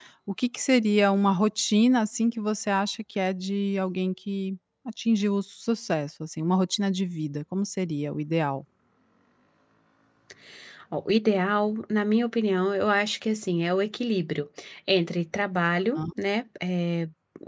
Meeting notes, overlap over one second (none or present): none